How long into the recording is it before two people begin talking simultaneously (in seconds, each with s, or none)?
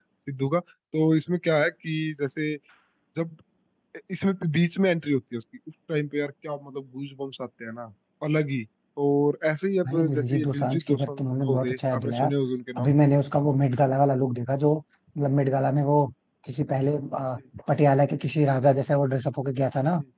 9.8 s